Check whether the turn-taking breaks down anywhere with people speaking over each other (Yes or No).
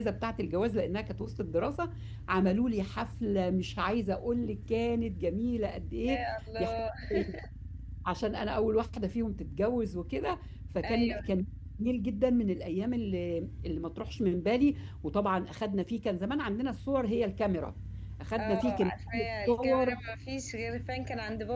Yes